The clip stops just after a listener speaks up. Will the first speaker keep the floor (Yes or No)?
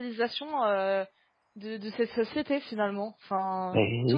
No